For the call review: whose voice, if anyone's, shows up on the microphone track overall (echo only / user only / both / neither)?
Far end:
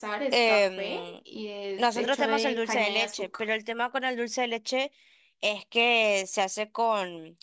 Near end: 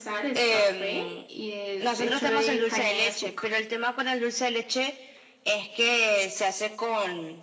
echo only